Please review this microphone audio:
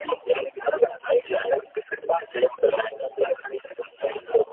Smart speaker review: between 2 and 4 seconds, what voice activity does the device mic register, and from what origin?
echo only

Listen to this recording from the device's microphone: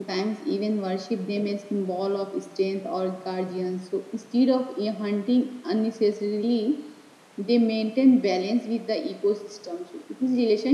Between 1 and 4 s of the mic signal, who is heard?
user only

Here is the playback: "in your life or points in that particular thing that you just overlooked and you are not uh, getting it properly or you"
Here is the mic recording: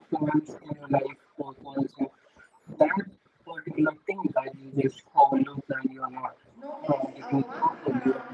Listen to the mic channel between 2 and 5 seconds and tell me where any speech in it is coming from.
echo only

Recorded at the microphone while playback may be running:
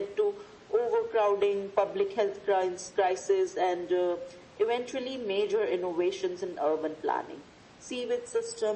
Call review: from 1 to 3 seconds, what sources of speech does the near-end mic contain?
echo only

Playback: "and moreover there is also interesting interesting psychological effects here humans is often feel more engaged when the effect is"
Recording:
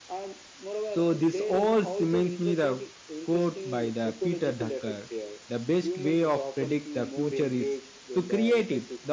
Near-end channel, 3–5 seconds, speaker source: both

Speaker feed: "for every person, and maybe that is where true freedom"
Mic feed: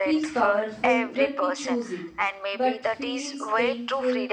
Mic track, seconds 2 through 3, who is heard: both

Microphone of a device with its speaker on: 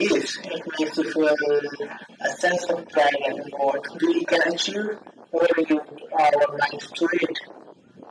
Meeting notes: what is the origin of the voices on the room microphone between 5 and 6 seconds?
echo only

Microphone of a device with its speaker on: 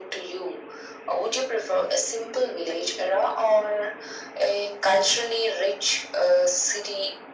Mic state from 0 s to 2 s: echo only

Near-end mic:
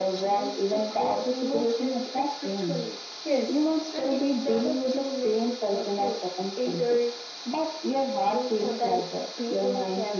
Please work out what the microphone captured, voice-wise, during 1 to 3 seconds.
echo only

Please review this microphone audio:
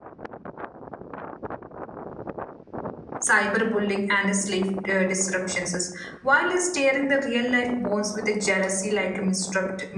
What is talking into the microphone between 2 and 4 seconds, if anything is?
user only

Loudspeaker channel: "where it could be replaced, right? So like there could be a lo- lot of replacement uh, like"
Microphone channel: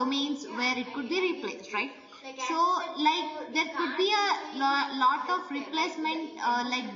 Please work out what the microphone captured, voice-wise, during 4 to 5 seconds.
both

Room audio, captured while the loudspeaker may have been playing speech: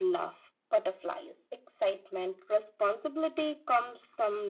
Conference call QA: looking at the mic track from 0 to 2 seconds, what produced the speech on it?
echo only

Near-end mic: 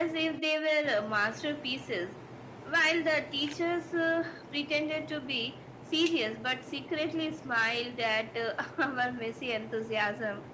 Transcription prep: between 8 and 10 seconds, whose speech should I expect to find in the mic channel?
echo only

